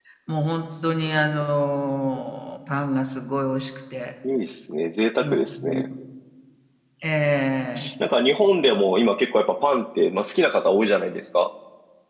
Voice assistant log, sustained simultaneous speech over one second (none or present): none